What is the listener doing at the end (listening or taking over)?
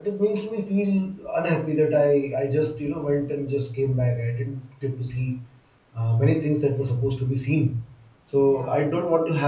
listening